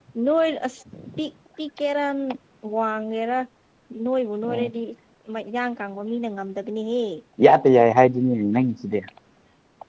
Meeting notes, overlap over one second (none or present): none